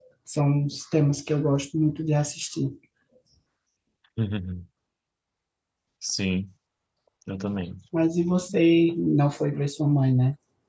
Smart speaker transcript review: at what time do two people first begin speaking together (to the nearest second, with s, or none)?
none